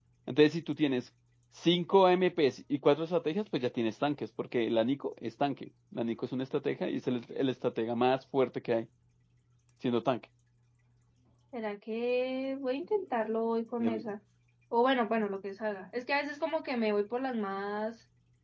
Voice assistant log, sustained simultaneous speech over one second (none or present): none